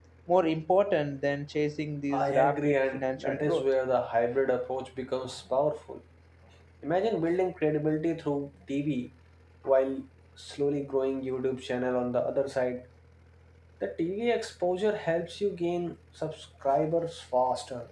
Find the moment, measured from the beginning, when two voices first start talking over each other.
2.1 s

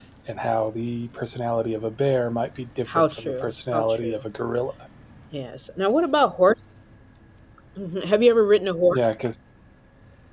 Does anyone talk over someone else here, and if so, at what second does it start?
2.9 s

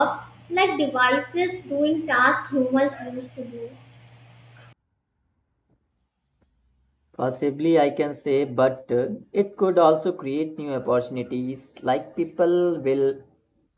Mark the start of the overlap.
none

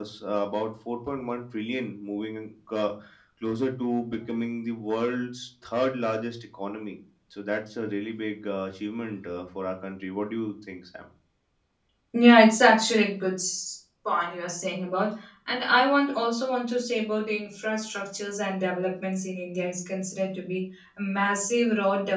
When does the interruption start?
none

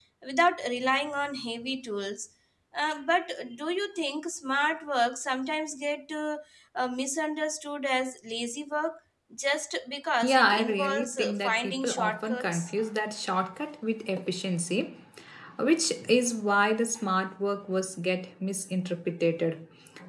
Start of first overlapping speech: 10.2 s

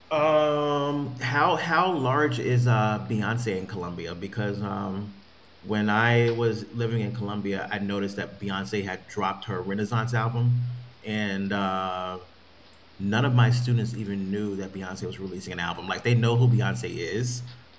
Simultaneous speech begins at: none

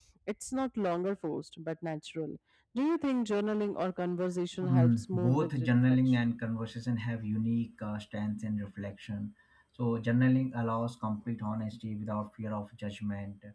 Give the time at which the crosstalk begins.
4.6 s

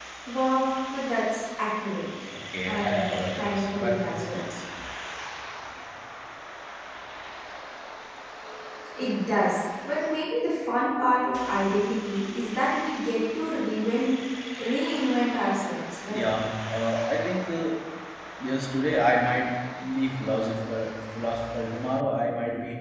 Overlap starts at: 2.7 s

